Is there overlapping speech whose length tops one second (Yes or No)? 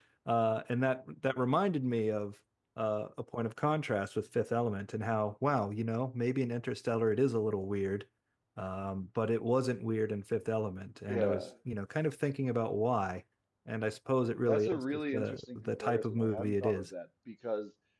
Yes